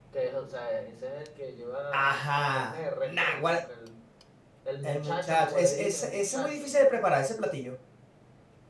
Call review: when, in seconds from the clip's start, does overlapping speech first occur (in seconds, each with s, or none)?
1.9 s